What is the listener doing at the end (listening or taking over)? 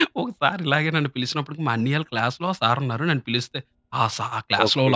listening